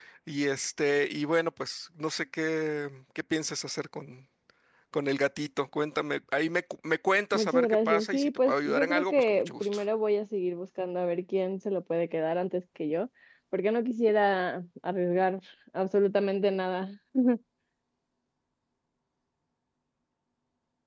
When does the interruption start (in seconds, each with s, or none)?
7.3 s